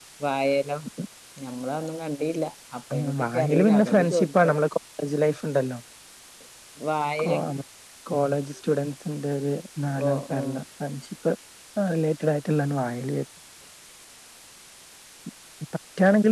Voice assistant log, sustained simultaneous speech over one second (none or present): present